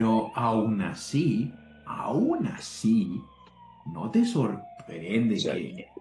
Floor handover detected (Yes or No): No